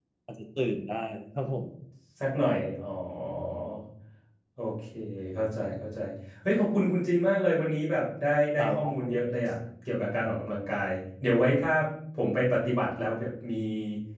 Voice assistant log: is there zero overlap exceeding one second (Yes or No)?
Yes